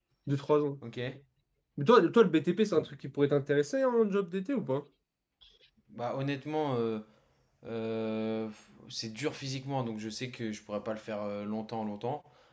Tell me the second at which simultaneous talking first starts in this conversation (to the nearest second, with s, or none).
none